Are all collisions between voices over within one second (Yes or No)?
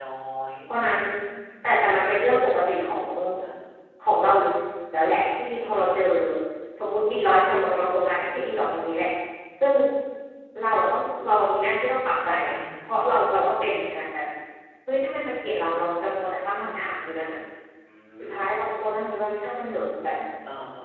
Yes